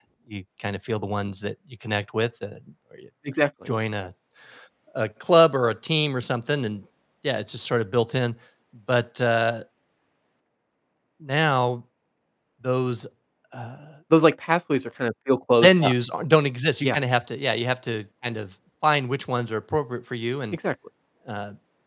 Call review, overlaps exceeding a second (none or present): none